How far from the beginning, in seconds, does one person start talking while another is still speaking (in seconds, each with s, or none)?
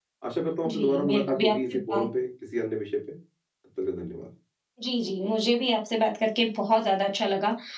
0.7 s